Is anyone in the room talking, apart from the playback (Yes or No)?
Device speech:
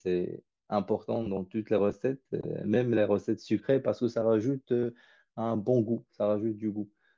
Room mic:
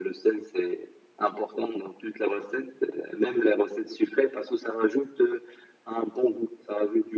No